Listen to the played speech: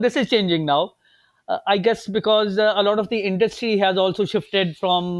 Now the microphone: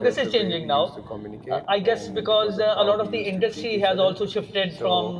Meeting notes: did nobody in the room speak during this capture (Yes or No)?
No